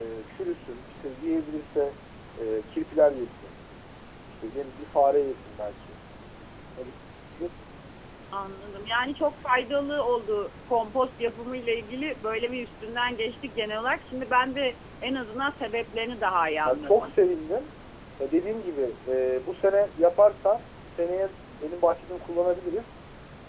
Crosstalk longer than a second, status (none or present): none